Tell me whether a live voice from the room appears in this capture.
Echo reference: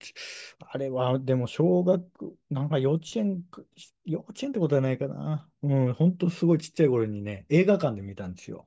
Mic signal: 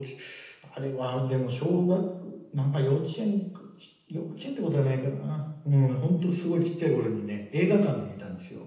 No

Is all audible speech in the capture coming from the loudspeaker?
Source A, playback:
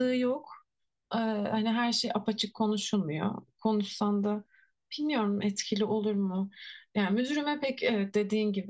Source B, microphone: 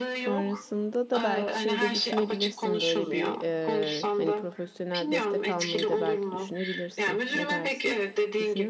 No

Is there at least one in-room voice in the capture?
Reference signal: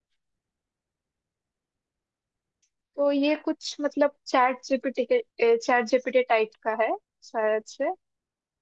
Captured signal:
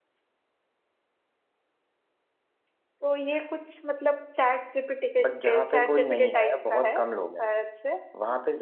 Yes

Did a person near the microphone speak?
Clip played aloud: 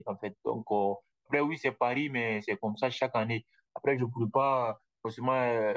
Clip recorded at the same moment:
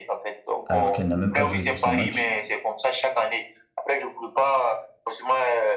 Yes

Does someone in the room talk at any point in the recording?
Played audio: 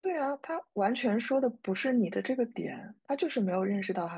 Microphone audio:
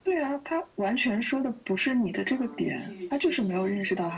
Yes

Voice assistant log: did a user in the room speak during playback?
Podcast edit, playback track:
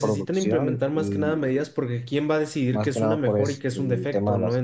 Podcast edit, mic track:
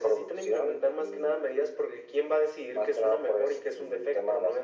No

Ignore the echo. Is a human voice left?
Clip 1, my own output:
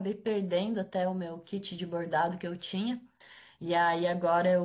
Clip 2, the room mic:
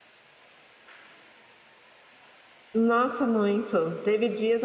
Yes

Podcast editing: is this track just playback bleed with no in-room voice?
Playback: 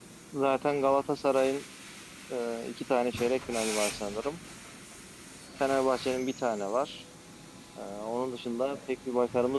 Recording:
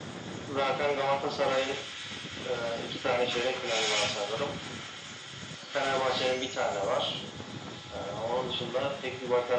Yes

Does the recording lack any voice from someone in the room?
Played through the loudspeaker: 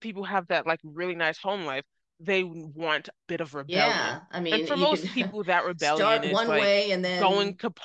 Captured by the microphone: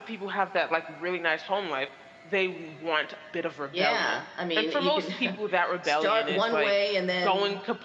Yes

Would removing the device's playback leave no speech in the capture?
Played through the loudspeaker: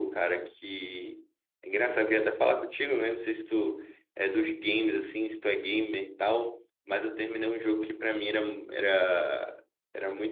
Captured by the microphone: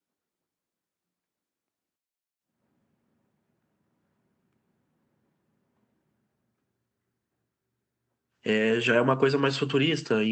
No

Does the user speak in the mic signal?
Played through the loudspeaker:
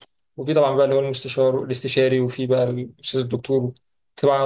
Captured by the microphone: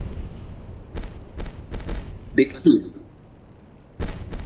Yes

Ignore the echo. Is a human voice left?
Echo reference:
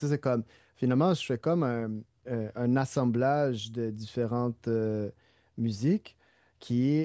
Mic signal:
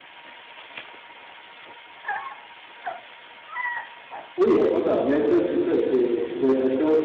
Yes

